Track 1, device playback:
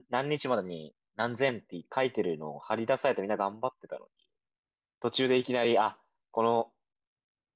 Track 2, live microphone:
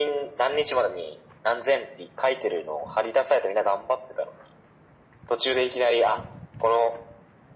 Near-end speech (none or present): none